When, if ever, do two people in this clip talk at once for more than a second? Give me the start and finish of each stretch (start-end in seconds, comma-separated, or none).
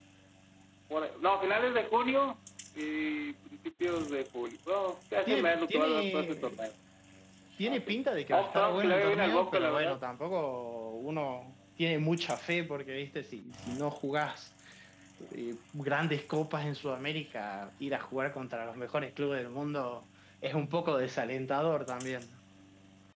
5.3-6.6, 8.3-10.0